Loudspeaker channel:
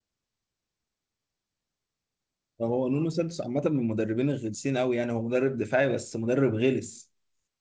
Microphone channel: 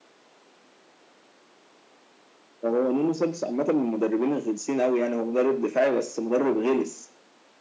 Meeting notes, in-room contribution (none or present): none